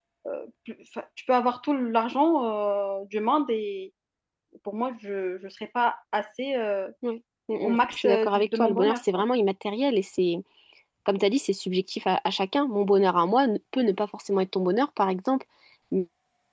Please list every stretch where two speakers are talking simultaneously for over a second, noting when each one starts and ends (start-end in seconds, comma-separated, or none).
7.5-9.2